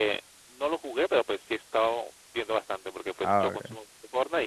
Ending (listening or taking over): listening